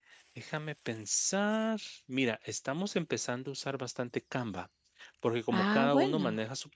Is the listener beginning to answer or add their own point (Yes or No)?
No